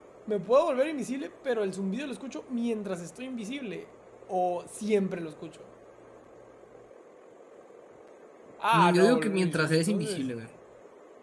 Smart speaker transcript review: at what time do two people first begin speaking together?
8.7 s

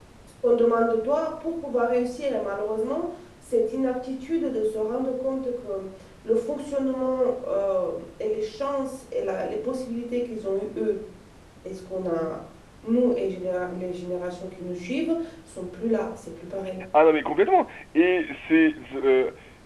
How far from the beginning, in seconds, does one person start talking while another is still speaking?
none

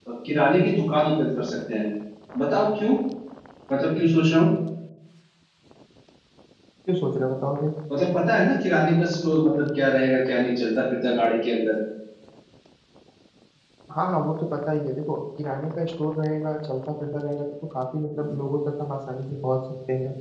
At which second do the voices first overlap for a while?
none

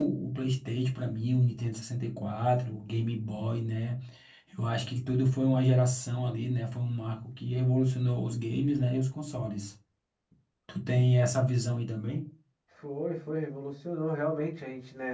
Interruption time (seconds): none

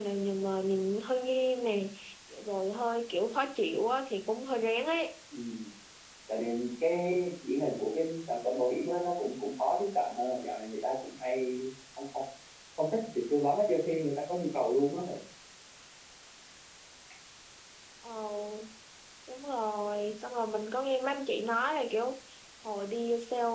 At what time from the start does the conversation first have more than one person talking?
none

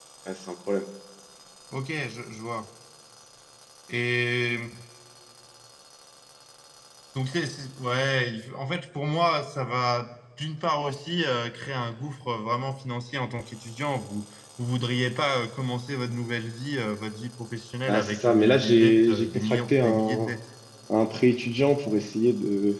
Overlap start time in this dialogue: 17.9 s

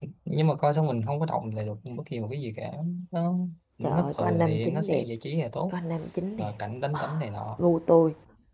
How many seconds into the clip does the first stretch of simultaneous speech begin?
3.8 s

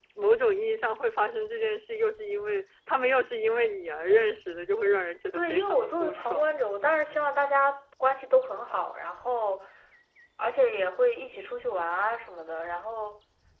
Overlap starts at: 5.3 s

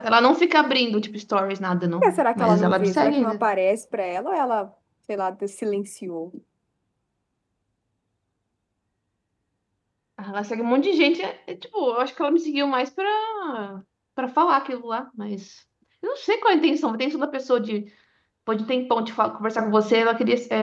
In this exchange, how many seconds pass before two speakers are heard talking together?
2.0 s

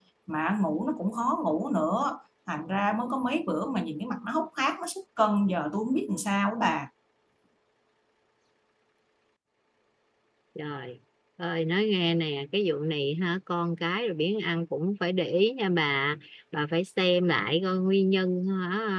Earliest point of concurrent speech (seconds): none

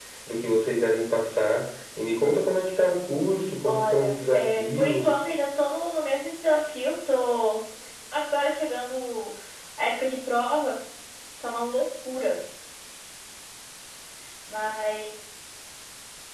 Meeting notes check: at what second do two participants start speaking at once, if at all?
3.6 s

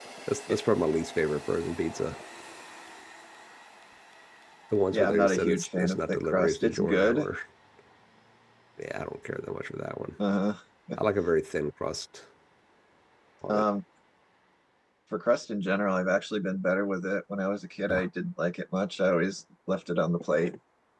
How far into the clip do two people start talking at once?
4.9 s

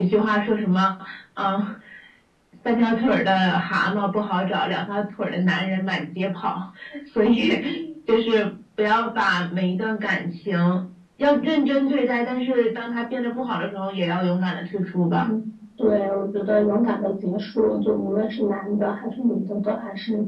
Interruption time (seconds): none

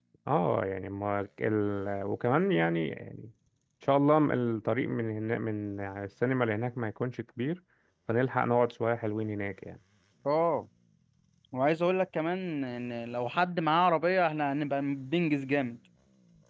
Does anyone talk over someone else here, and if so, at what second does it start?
none

